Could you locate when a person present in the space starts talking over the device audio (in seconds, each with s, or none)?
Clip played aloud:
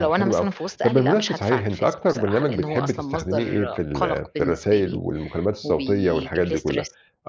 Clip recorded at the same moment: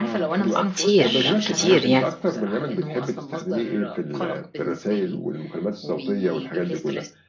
0.6 s